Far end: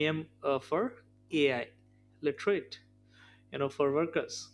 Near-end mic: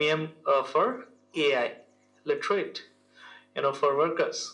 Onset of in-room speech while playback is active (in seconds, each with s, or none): none